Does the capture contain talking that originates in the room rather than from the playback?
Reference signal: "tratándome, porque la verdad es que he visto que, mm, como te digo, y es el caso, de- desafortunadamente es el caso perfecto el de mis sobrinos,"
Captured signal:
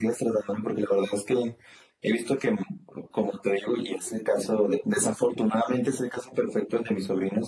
No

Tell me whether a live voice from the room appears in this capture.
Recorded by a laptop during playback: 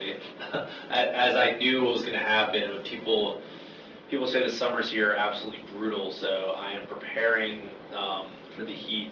No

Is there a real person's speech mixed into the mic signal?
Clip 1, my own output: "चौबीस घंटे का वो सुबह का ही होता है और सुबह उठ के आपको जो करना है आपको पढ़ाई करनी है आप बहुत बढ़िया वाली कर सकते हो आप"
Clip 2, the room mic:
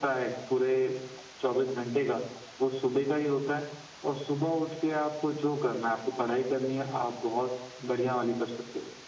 No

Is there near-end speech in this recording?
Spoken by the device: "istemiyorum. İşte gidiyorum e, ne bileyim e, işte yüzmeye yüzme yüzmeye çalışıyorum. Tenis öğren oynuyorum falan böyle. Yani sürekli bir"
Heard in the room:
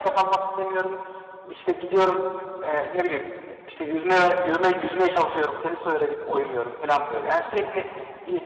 No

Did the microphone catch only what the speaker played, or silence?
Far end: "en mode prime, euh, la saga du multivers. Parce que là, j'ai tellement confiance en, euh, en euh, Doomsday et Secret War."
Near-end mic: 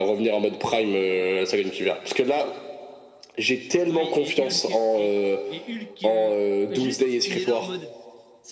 No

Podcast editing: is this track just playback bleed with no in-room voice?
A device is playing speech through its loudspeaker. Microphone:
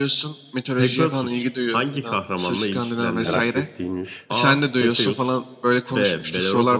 No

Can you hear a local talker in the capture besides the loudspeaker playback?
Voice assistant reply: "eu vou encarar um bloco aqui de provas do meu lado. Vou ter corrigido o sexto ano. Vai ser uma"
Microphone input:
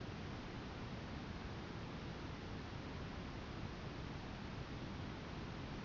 No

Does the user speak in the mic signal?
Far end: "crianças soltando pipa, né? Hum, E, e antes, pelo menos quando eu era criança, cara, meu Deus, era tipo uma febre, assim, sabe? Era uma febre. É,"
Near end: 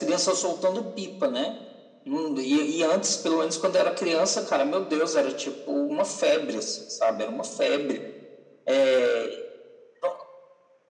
No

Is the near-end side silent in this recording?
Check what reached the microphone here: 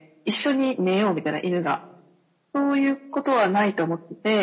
Yes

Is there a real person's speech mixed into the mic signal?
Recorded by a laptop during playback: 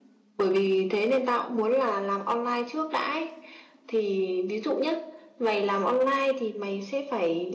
No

